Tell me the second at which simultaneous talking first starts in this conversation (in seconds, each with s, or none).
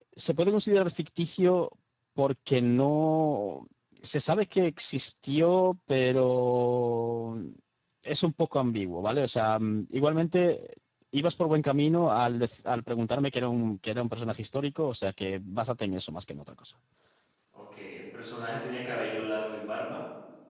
none